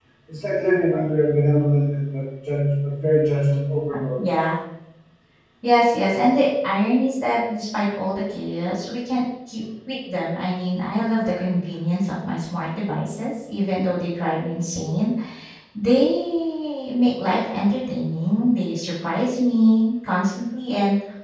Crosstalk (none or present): none